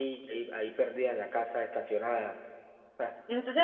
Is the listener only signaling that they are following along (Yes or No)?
No